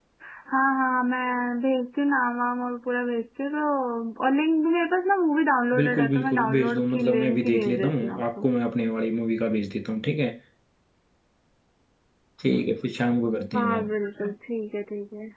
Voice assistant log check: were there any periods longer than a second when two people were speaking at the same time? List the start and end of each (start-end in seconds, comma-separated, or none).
5.8-8.4